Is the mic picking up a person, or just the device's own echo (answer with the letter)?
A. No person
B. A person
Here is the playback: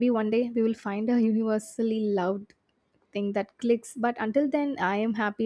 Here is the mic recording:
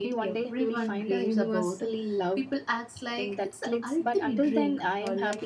B